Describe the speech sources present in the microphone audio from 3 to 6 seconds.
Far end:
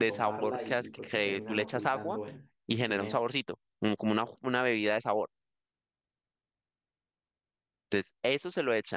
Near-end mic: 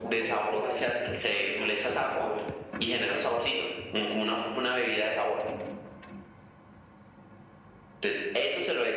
echo only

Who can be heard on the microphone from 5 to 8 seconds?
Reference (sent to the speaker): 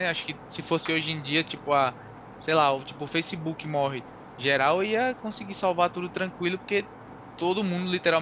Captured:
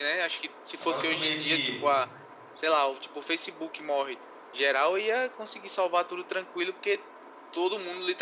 echo only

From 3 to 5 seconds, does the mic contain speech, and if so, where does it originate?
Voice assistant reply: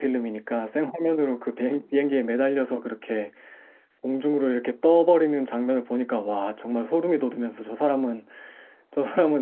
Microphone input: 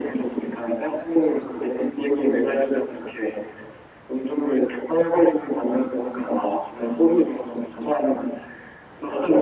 echo only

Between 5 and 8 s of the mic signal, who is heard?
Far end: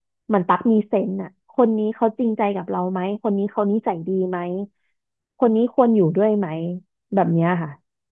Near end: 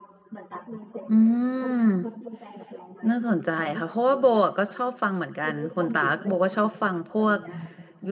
both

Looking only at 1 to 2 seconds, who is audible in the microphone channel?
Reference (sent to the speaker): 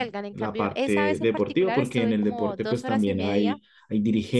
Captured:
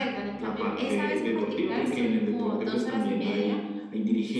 echo only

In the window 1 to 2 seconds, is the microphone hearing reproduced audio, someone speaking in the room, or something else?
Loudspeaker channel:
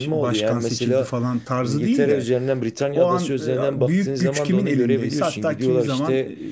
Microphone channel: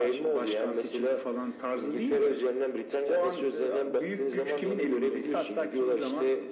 echo only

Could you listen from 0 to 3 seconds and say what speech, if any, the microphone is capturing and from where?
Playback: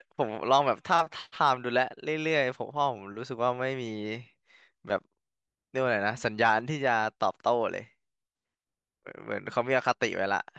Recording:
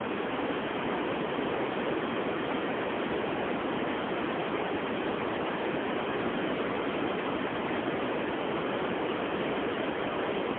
neither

